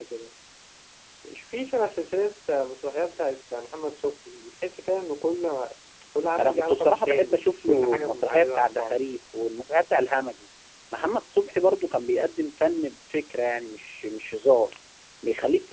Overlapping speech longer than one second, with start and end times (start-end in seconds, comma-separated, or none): 6.4-9.0